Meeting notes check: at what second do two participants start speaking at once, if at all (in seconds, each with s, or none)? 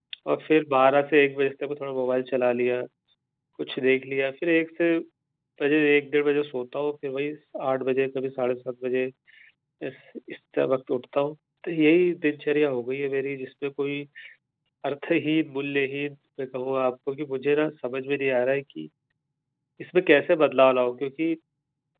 none